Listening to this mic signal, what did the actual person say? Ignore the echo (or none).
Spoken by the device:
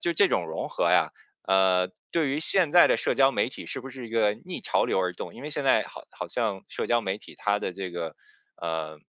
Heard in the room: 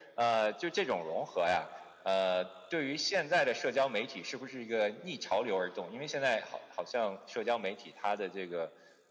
none